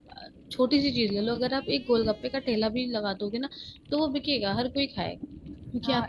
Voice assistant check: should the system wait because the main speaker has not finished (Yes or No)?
No